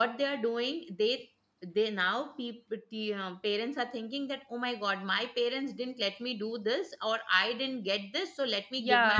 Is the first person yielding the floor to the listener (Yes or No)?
Yes